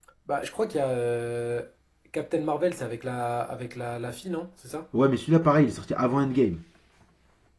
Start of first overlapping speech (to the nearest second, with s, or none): none